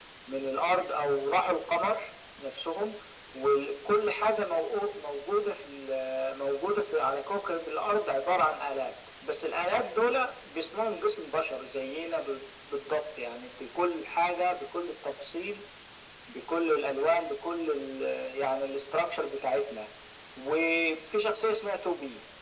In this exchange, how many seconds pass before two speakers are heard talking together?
none

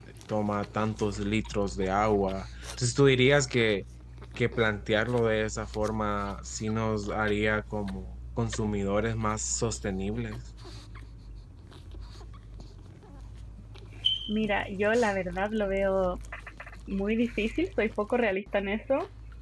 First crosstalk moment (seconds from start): none

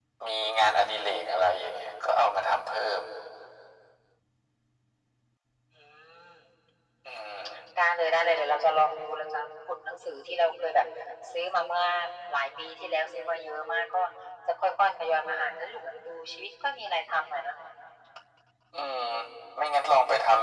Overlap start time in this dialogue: none

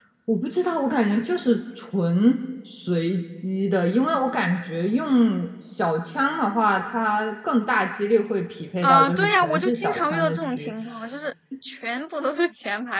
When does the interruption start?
8.8 s

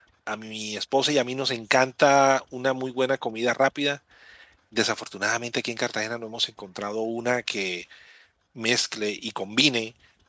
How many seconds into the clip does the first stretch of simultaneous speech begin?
none

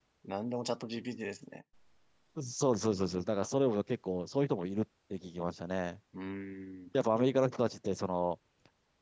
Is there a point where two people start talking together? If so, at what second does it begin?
none

